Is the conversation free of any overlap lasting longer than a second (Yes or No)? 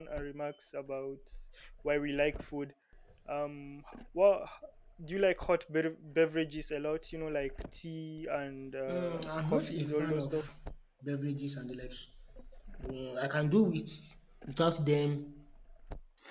No